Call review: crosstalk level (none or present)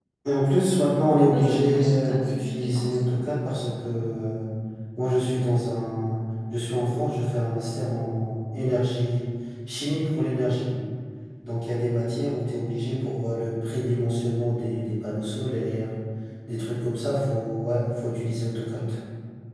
present